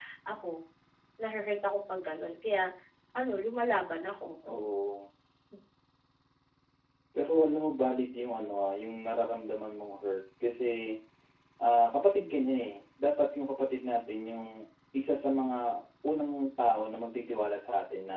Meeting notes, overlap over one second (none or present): none